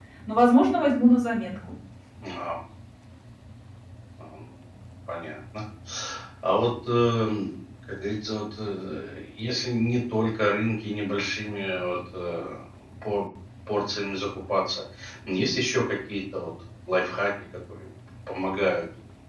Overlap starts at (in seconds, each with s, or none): none